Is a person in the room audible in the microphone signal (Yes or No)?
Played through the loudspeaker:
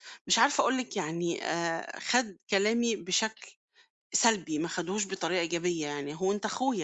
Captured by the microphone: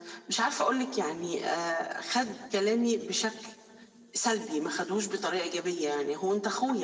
No